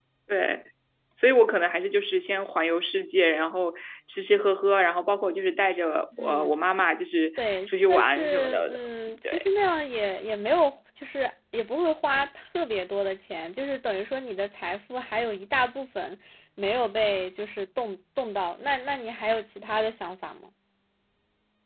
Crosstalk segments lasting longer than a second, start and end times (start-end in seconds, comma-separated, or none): 7.4-8.8